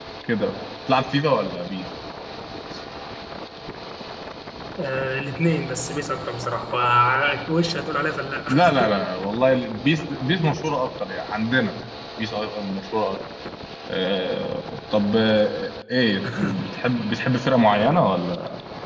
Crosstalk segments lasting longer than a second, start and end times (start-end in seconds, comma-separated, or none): none